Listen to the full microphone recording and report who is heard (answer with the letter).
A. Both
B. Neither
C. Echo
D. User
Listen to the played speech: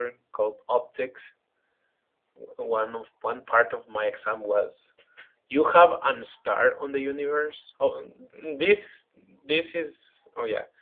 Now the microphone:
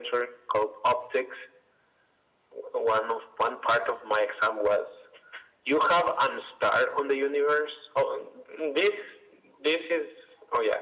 C